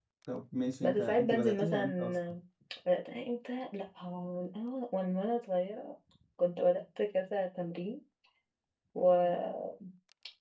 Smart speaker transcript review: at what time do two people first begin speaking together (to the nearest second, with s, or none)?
1 s